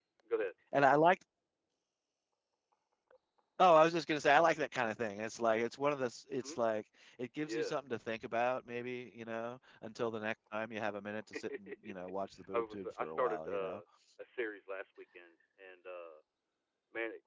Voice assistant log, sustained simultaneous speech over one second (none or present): present